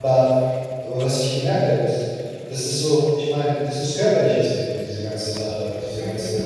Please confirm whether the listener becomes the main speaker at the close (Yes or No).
No